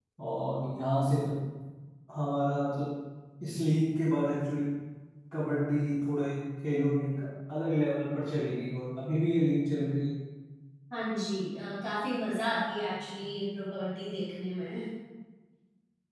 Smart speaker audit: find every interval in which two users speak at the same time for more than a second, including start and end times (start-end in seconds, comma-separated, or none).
none